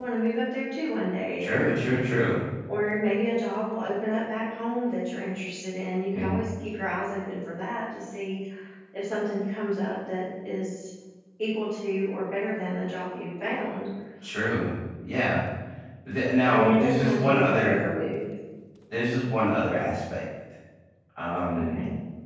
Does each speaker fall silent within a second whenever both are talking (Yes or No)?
No